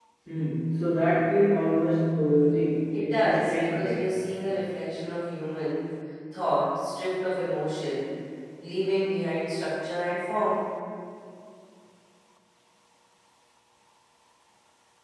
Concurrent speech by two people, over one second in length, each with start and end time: 2.9-4.2

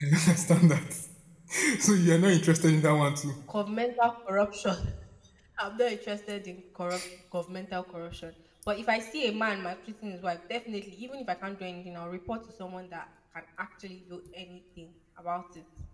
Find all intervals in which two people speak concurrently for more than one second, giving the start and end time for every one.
none

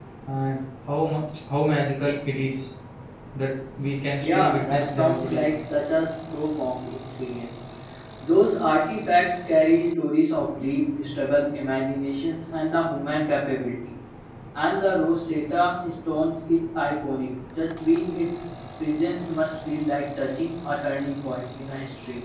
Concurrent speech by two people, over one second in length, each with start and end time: 4.2-5.5

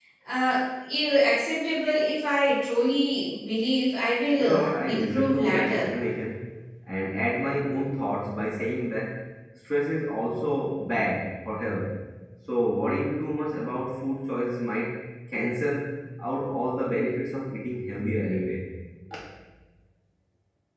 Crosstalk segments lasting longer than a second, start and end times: 4.4-5.8

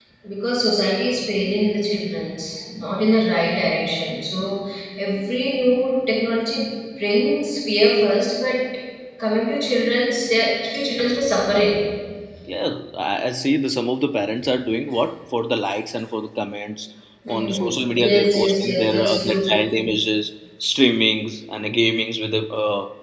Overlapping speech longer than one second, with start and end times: 18.1-19.4

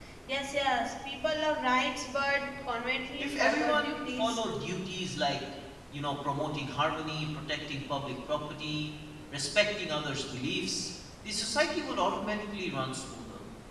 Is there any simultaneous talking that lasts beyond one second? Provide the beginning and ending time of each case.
3.2-4.4

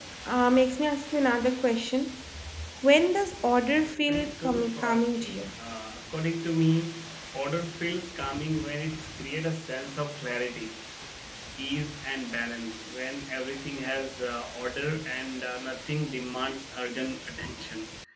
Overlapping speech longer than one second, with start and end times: 3.8-5.5

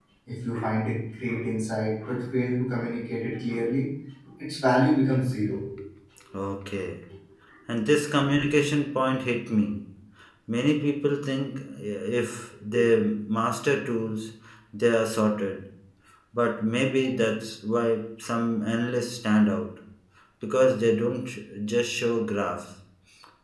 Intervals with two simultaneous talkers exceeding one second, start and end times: none

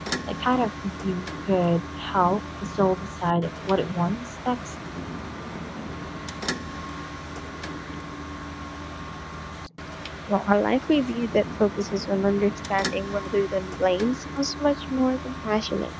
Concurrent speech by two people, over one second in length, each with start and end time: none

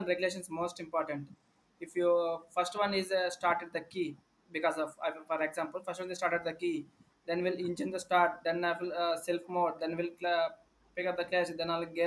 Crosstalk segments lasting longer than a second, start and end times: none

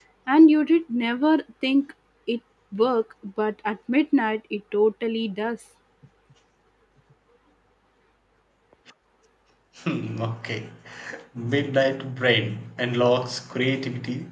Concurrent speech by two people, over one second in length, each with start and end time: none

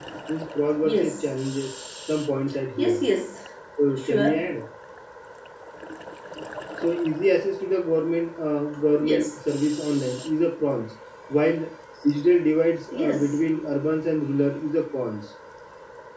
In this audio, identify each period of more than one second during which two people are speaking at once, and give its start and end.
none

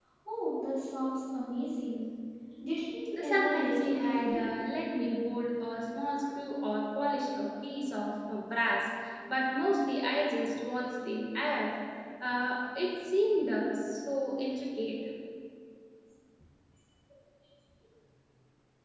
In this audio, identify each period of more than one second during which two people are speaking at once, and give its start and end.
3.2-4.5

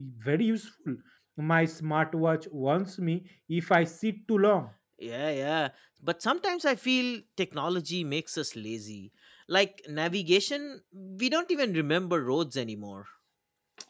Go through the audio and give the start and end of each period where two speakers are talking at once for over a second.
none

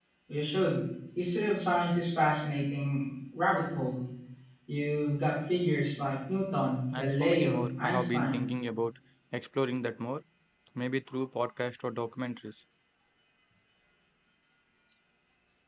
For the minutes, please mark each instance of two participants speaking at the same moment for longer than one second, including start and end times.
6.9-8.4

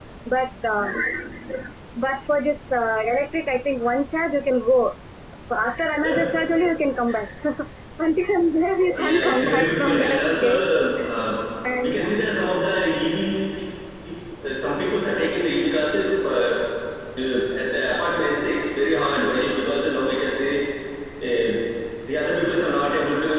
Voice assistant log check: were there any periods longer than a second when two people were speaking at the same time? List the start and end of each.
8.9-10.6

